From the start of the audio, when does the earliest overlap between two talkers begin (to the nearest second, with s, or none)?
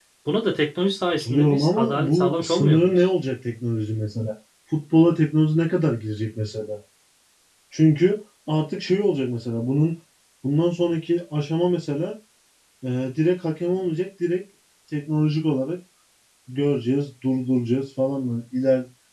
1 s